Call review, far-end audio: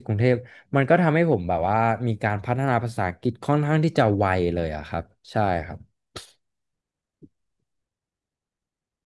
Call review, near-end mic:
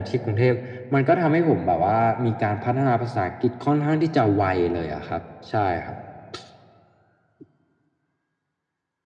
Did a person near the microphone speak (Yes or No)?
No